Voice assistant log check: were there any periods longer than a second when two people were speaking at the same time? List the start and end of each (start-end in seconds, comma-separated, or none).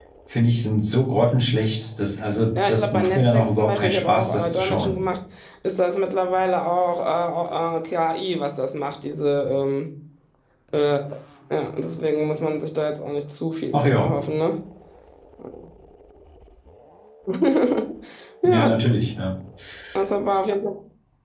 2.7-4.9